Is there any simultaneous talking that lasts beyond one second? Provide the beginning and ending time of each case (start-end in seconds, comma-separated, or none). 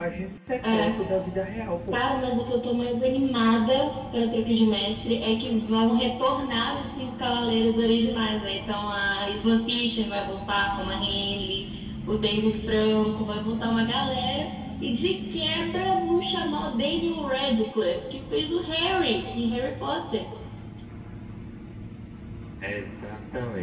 none